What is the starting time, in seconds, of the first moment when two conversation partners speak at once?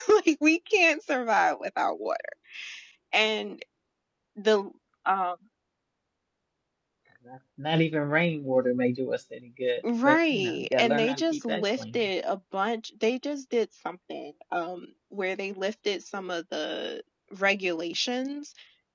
9.8 s

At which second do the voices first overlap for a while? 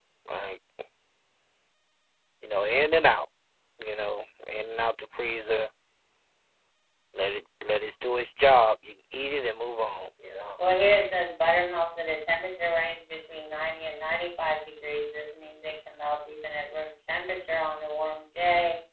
none

